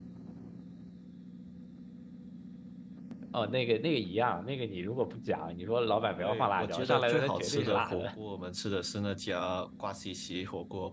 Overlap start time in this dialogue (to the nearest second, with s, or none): 6 s